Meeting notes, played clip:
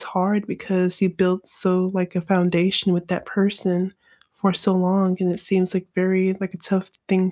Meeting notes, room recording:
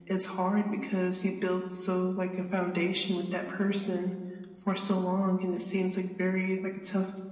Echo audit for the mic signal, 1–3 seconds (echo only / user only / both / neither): echo only